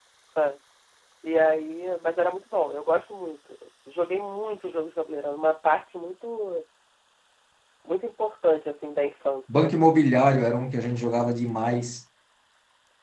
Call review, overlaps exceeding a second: none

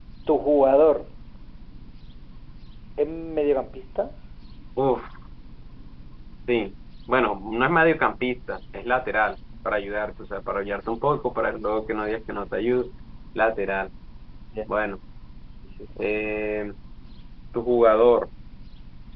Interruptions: none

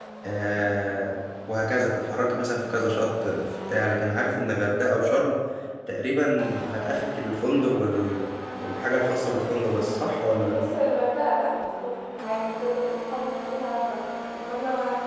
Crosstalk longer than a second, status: none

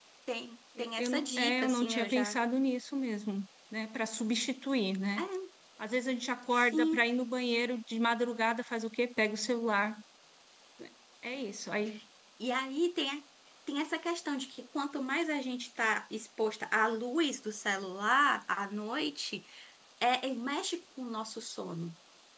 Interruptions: present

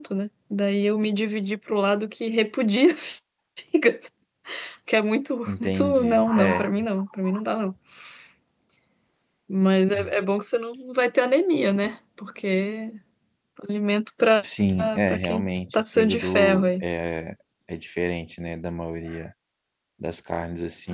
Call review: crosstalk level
present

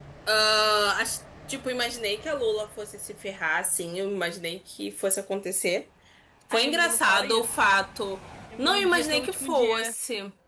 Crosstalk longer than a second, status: present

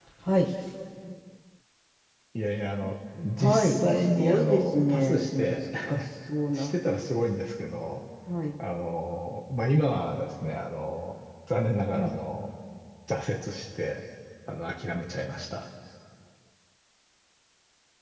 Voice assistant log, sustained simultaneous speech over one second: present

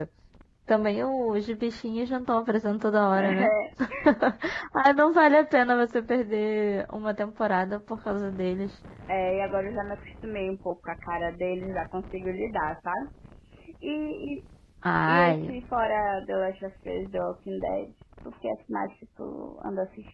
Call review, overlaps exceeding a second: none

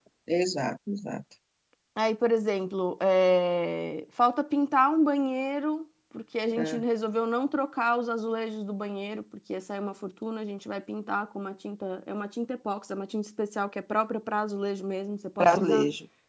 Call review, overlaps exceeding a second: none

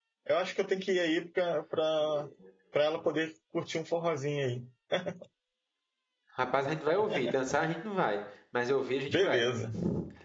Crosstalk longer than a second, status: none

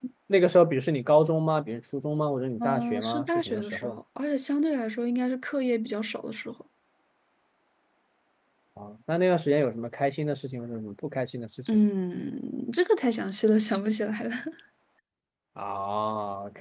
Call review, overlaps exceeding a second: present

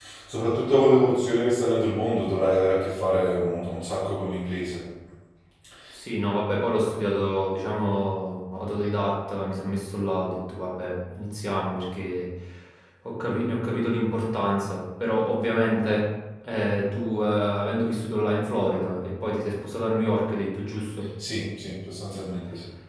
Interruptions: none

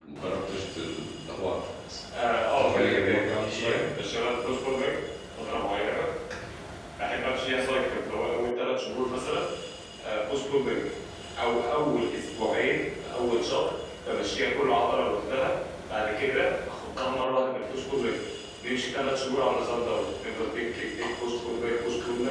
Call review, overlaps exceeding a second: present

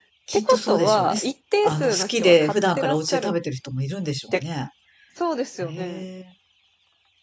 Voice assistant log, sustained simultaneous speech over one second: present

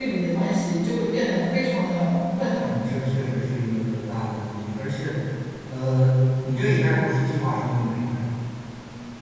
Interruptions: none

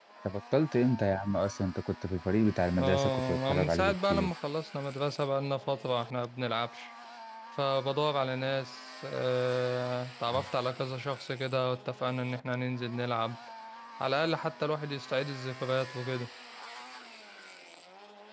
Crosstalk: present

